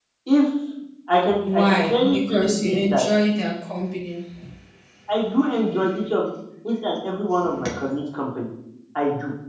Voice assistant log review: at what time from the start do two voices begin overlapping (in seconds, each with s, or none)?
1.4 s